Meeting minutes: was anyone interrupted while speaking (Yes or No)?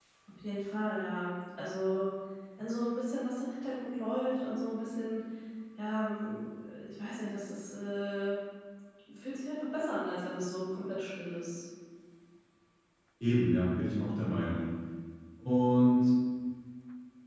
No